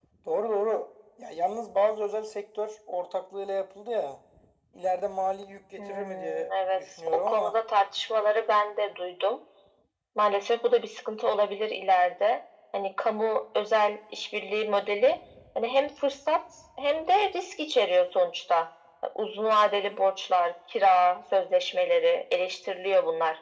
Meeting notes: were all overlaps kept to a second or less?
No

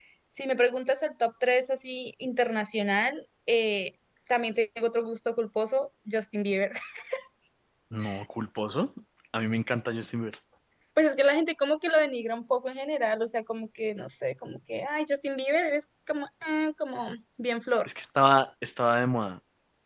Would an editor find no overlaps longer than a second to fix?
Yes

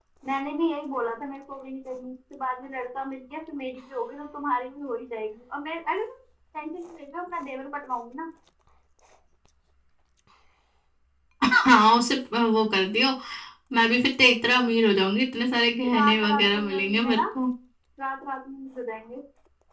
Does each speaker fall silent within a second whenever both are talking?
No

